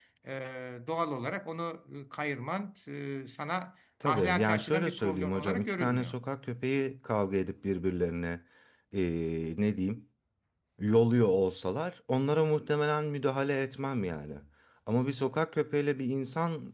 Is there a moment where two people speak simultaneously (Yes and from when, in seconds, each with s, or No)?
Yes, from 4.0 s